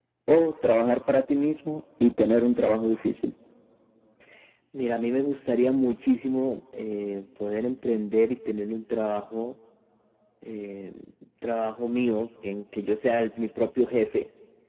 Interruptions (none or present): none